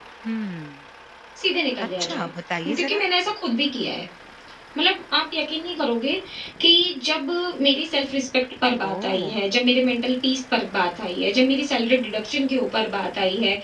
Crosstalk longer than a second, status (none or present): none